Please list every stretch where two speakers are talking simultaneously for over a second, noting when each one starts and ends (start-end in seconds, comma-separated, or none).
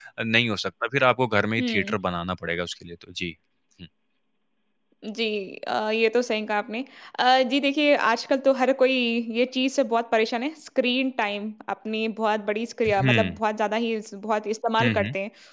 none